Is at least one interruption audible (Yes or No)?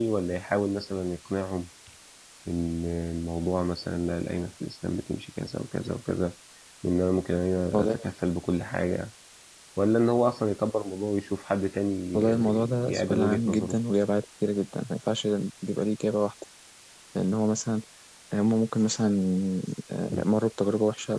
Yes